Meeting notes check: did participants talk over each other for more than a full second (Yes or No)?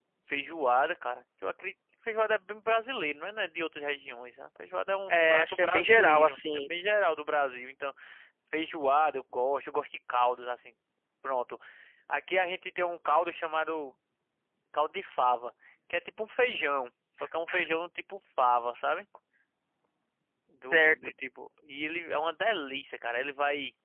Yes